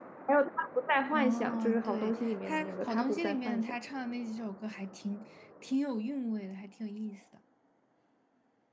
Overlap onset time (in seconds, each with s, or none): 1.1 s